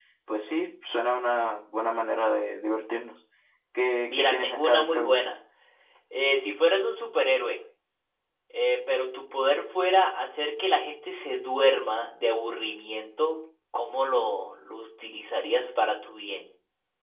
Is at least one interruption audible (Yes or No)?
Yes